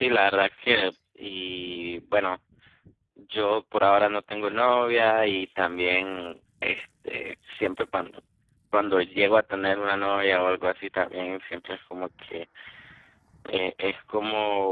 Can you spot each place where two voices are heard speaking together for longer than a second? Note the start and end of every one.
none

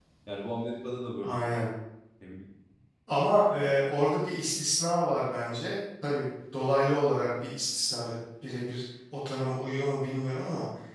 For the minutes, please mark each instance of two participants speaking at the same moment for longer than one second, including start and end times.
none

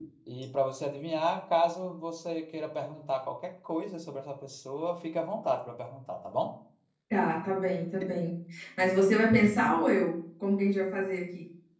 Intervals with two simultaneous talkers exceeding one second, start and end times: none

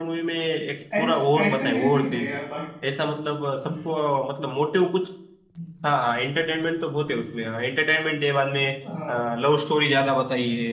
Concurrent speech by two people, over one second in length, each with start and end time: 1.0-2.4

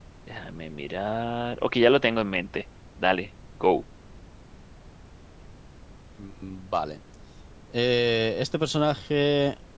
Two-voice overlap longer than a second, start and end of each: none

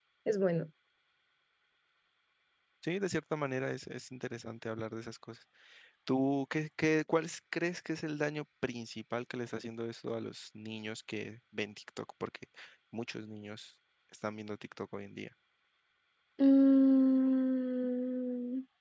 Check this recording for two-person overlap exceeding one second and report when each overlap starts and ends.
none

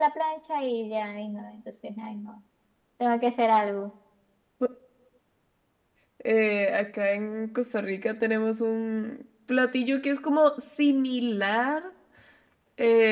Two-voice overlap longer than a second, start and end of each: none

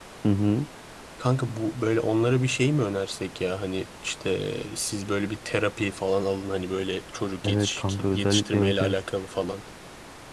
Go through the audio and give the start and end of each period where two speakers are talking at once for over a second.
7.4-9.0

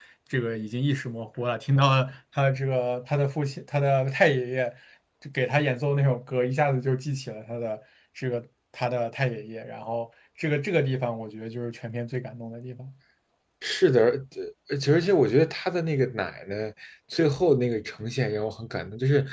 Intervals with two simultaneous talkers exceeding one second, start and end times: none

